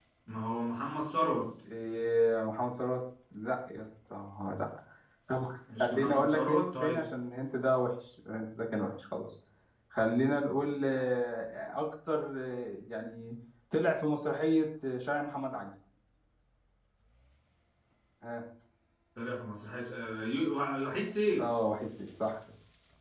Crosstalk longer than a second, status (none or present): present